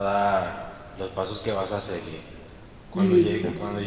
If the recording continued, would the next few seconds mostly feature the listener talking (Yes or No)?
No